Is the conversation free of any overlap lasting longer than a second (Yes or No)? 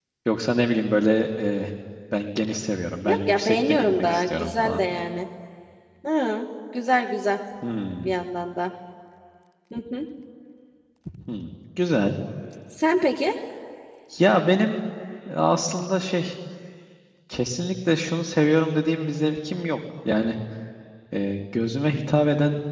No